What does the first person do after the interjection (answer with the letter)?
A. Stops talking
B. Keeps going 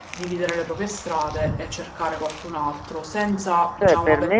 A